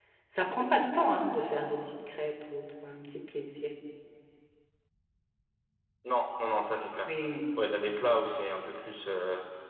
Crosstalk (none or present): none